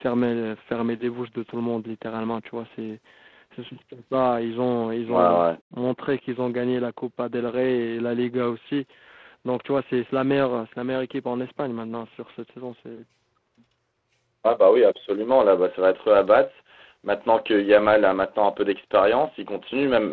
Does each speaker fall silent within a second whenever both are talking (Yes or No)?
Yes